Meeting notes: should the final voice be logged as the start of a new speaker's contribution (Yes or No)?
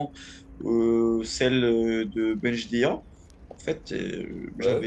No